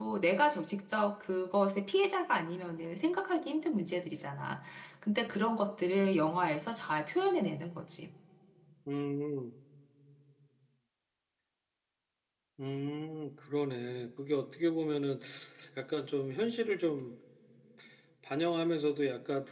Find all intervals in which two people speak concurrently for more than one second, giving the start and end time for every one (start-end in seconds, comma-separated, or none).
none